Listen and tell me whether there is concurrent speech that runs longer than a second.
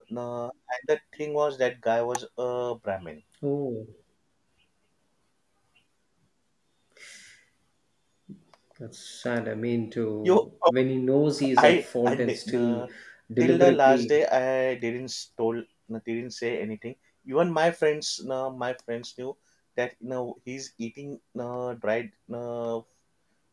Yes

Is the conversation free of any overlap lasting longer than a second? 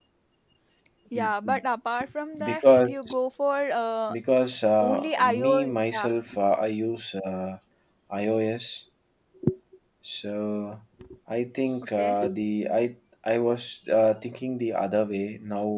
No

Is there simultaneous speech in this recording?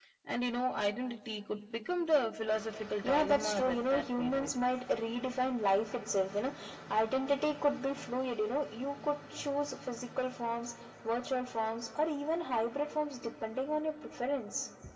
Yes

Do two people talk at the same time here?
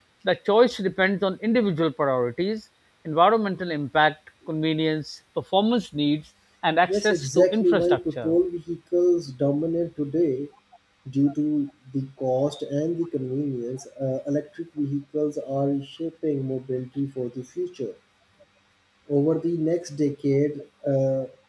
Yes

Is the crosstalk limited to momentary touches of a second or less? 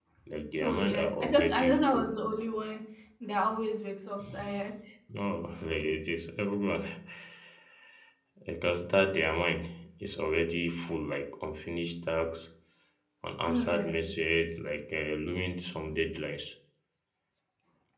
No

